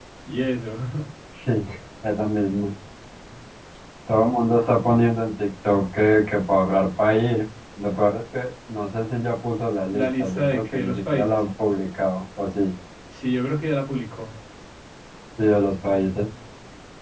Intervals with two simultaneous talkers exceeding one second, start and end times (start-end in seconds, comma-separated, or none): 9.9-11.4